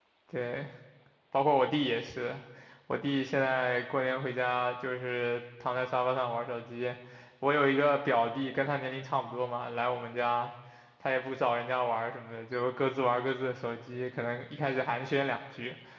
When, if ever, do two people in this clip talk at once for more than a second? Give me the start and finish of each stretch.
none

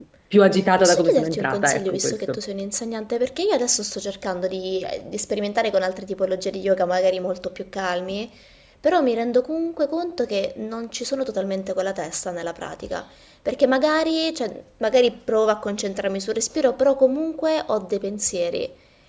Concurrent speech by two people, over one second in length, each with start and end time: 0.8-2.4

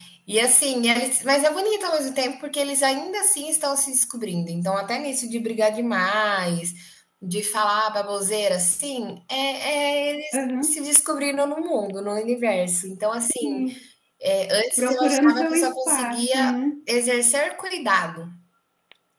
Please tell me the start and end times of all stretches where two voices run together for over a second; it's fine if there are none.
14.8-16.4

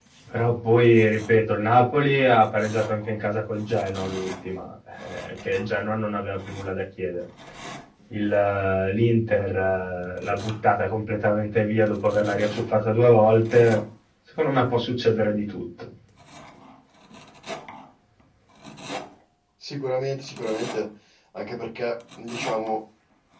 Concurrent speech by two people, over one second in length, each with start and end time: none

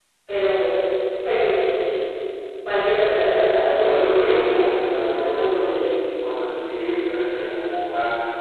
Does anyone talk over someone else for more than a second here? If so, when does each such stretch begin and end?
3.8-5.7

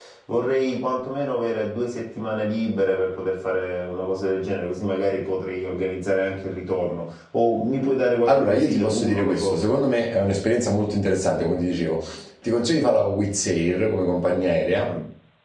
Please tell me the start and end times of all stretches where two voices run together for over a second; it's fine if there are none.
8.3-9.6

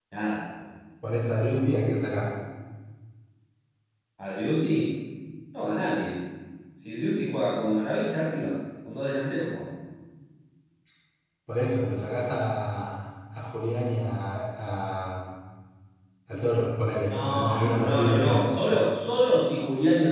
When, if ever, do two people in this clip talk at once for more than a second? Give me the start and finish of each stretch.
17.1-18.4

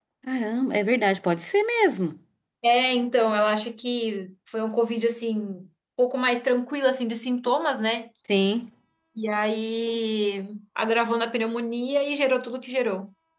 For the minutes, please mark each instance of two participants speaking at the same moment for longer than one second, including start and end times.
none

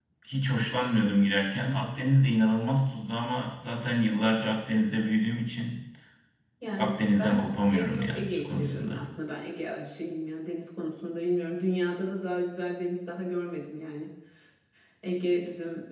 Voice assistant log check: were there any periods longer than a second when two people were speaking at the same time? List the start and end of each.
6.8-9.1

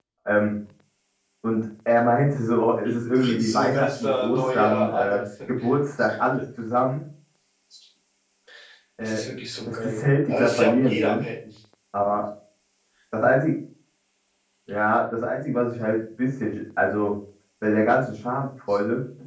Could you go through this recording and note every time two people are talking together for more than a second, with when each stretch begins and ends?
3.4-5.2, 9.8-11.2

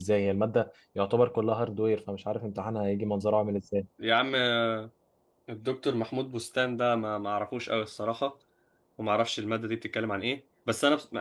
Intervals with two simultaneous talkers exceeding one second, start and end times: none

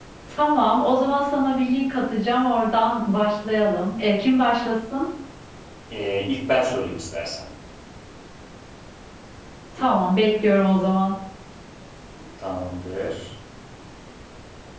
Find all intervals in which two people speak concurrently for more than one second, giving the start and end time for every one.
none

